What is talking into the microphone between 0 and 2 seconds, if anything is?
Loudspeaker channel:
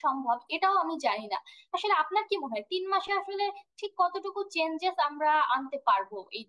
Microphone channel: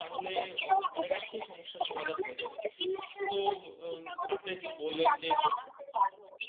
both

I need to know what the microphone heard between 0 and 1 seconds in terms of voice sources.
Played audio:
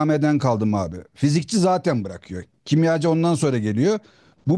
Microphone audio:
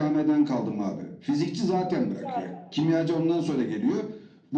echo only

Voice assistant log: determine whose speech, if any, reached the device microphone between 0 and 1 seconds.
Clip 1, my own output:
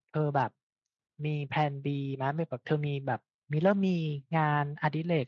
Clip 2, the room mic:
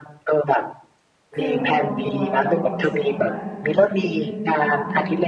echo only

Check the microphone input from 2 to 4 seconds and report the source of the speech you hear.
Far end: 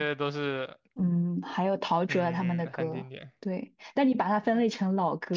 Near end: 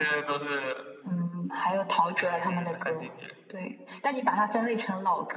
echo only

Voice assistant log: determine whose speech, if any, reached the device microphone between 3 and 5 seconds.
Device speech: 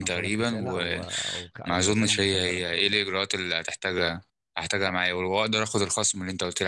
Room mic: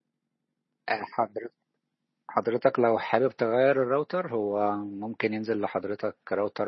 user only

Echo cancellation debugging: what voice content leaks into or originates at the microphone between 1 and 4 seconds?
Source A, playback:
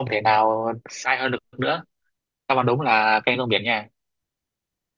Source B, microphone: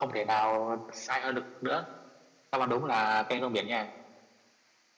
echo only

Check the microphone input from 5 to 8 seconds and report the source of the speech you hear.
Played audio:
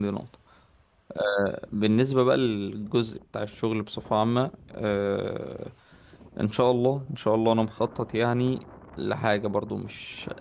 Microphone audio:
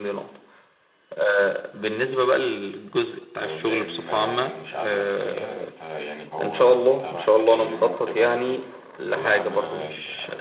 both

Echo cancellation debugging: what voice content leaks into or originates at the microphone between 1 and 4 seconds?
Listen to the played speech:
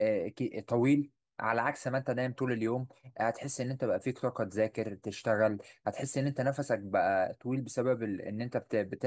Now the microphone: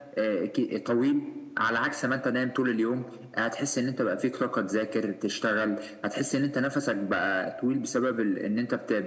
echo only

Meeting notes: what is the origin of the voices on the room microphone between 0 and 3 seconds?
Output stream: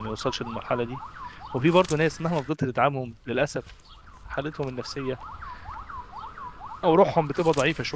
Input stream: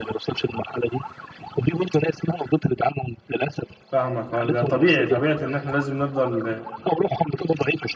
echo only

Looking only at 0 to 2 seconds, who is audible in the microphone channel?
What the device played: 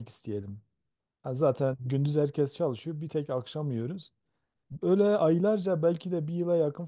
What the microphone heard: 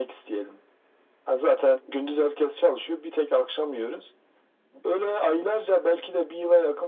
echo only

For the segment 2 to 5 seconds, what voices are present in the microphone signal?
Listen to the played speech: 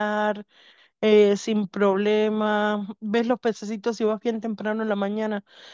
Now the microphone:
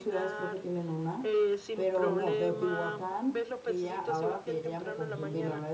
both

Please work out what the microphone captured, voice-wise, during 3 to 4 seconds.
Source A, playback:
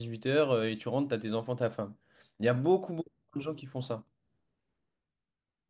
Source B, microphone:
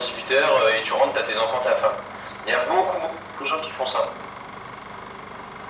echo only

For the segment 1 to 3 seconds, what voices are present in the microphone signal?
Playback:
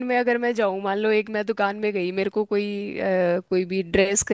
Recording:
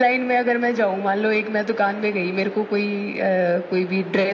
echo only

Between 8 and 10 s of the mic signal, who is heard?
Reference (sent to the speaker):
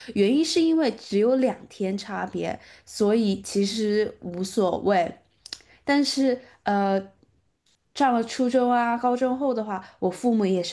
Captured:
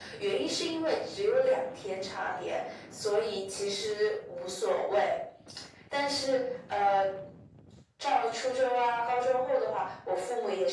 echo only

